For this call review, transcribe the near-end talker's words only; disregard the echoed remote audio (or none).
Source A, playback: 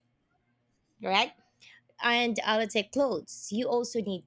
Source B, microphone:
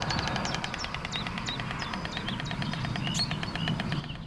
none